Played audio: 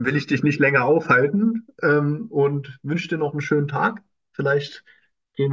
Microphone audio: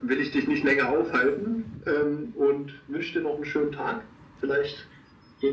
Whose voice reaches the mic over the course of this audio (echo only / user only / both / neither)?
echo only